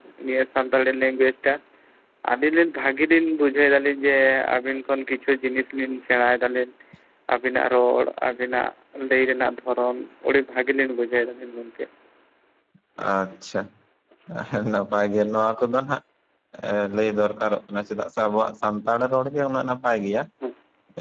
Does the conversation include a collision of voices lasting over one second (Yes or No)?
No